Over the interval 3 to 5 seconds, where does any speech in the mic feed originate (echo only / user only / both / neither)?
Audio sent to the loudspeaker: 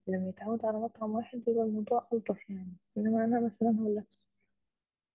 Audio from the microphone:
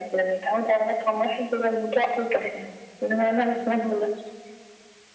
echo only